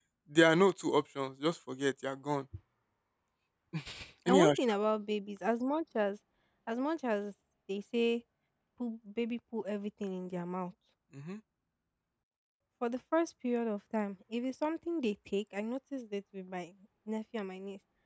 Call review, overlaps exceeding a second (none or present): none